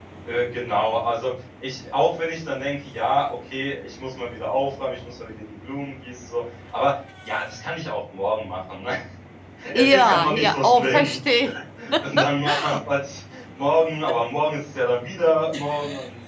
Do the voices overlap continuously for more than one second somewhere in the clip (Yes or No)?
Yes